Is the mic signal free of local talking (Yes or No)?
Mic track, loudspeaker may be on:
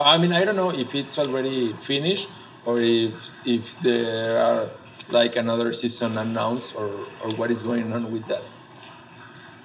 Yes